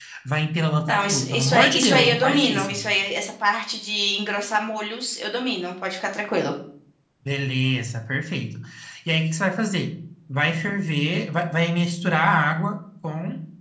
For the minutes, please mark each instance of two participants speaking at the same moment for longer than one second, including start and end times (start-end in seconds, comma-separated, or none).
0.9-2.8